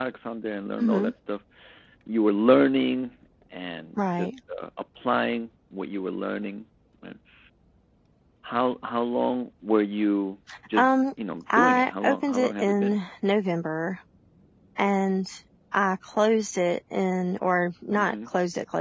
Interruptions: present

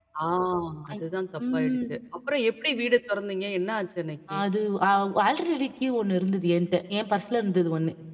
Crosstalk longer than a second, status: none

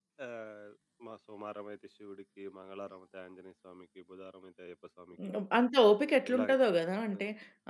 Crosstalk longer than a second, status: none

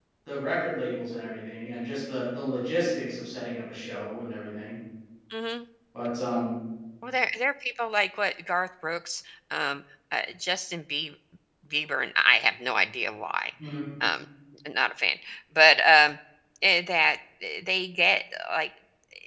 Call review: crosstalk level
none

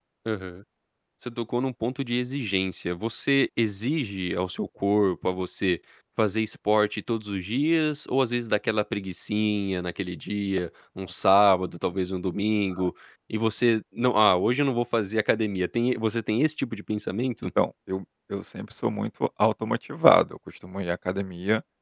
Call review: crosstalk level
none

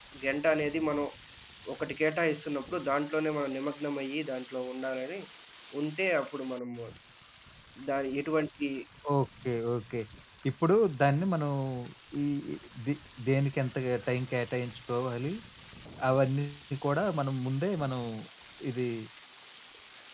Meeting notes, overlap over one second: none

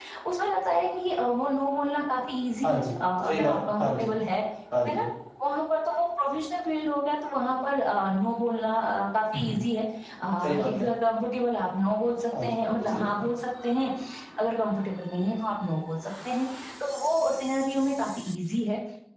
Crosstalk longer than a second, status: present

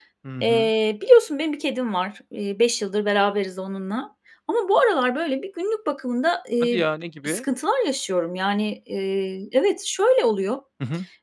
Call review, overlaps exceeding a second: none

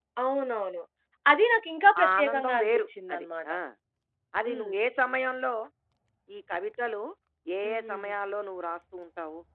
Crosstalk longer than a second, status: present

